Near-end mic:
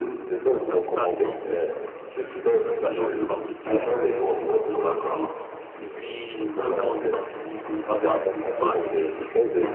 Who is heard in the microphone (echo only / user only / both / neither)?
both